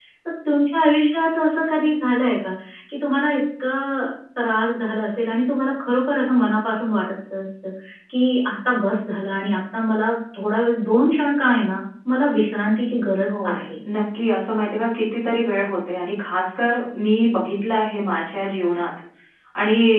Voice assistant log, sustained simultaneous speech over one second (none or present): none